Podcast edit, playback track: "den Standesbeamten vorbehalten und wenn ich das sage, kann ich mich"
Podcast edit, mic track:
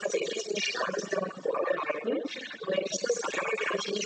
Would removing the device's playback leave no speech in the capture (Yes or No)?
Yes